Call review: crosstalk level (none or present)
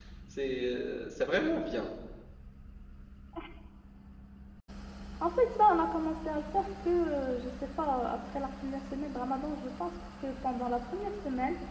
none